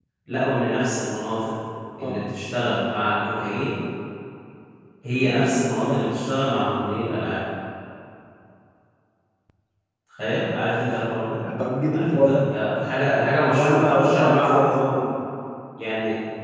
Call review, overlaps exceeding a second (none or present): present